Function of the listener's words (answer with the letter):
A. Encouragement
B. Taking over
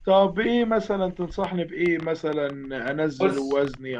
A